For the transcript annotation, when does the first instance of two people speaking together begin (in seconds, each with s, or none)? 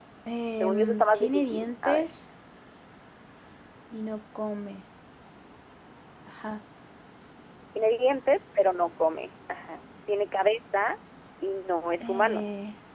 0.6 s